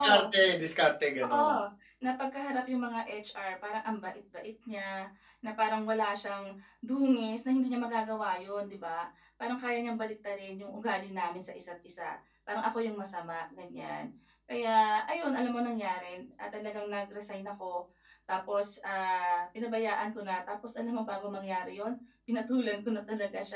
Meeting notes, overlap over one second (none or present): none